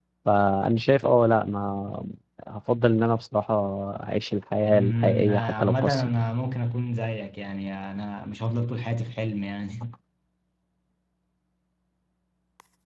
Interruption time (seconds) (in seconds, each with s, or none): 4.7 s